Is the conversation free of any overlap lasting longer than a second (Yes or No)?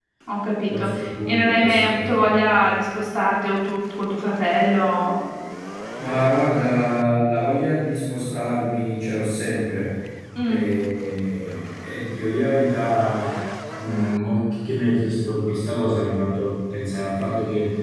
No